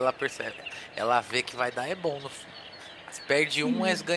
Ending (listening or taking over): listening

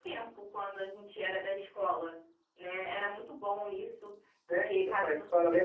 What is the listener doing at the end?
taking over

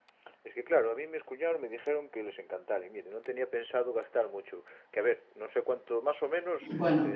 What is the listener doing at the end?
listening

